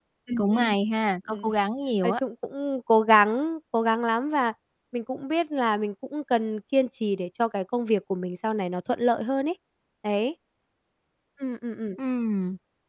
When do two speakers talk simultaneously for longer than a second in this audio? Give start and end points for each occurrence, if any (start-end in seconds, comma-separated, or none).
none